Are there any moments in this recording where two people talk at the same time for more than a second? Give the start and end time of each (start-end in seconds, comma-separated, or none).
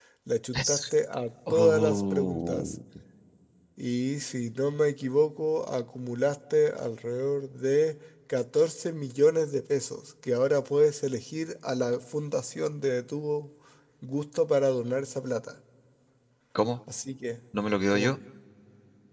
1.5-2.7